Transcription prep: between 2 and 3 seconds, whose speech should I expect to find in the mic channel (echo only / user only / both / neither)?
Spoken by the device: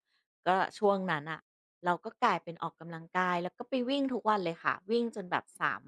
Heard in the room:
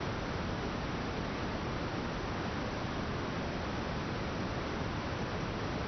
neither